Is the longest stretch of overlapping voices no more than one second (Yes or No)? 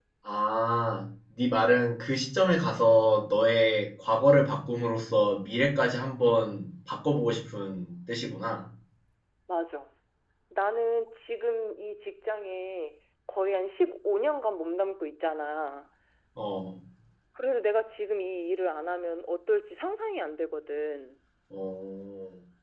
Yes